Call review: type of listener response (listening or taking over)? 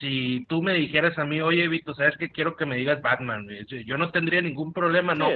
listening